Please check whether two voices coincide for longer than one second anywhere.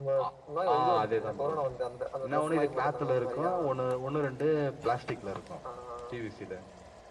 Yes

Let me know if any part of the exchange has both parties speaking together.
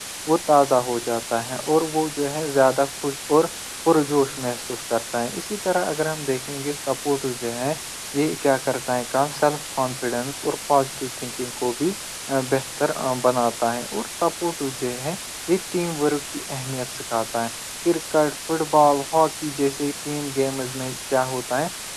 No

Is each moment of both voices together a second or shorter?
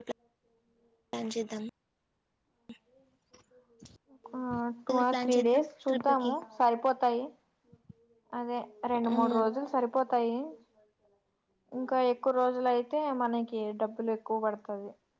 No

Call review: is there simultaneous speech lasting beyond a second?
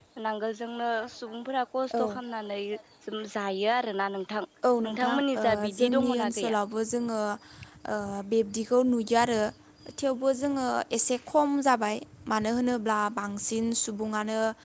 Yes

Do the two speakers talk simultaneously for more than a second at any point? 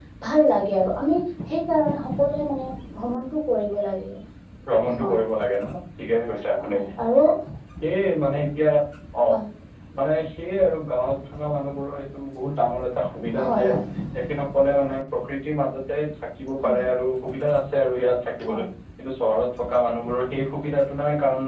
No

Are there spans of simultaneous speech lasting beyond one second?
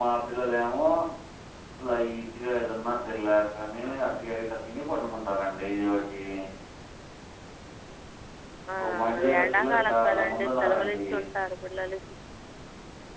Yes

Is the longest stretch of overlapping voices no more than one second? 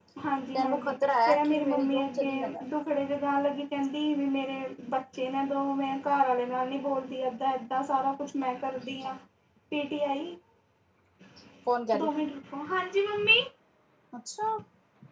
No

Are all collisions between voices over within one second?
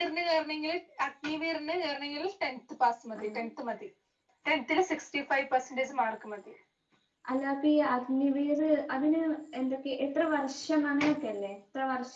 Yes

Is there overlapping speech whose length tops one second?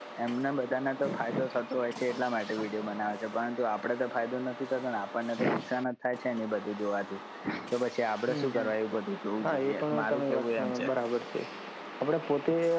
Yes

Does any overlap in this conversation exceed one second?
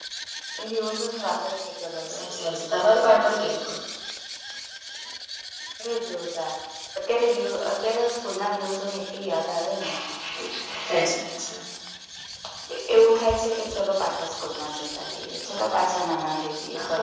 No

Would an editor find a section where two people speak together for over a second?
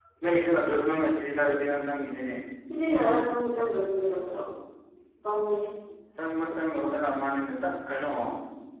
No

